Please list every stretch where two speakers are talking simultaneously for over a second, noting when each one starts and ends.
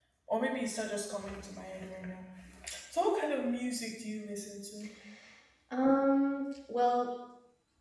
none

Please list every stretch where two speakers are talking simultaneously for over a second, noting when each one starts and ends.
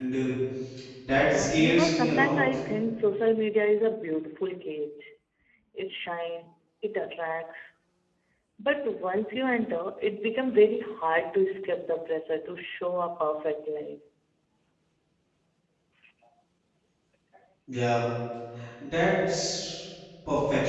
1.2-2.4

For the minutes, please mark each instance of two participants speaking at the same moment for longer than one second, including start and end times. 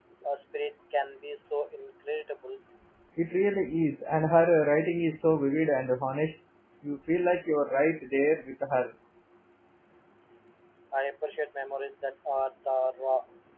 none

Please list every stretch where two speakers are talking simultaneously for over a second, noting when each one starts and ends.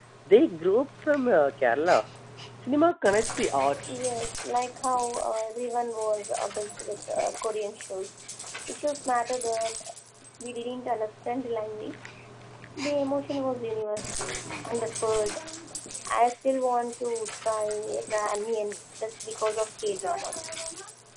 none

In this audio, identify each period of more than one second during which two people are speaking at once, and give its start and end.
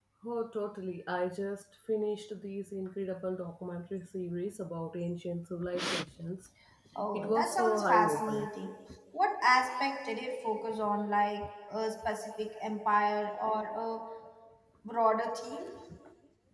7.1-8.5

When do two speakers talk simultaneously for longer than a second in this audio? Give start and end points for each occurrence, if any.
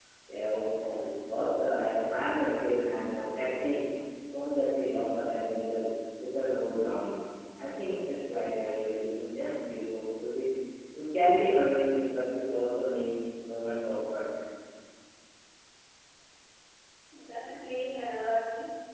none

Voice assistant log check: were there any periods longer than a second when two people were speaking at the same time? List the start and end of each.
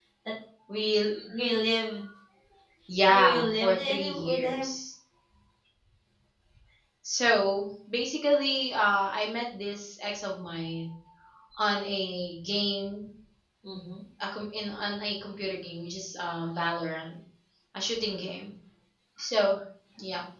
3.1-4.7

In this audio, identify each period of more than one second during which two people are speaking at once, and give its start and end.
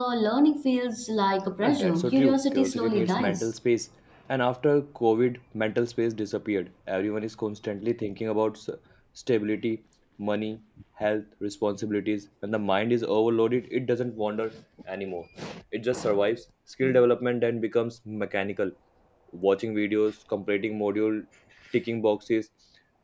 1.6-3.5

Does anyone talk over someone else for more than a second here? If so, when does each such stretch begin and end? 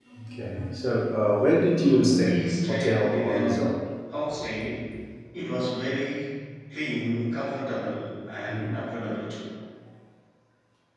1.7-3.7

